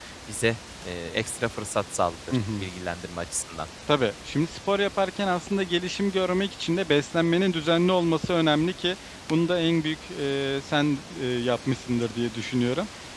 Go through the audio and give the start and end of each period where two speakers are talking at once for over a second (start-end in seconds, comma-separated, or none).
none